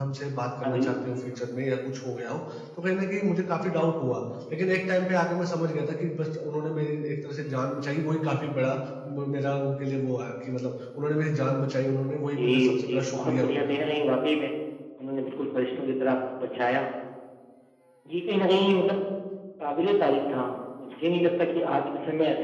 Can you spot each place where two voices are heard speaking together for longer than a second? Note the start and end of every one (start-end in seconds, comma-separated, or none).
12.1-13.6